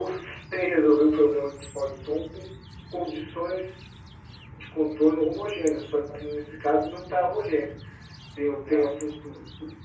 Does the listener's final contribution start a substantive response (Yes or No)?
No